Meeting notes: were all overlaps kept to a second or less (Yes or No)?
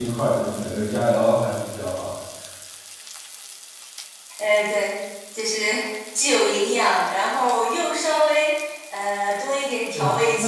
Yes